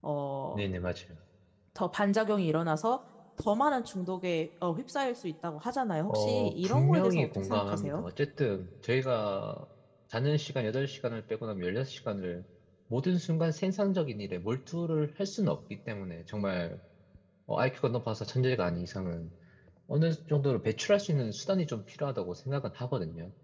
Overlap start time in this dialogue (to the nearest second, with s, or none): 6 s